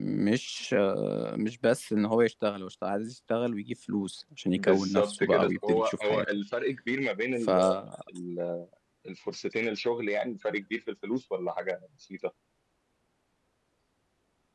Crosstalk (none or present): present